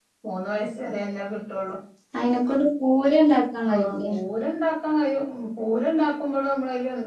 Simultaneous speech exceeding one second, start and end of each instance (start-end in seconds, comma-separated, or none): none